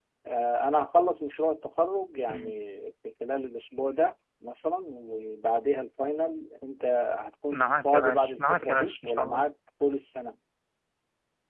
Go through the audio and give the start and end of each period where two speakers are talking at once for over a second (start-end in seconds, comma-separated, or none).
7.5-9.4